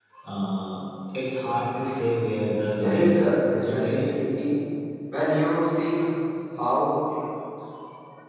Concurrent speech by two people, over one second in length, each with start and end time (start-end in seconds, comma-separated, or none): 2.8-4.0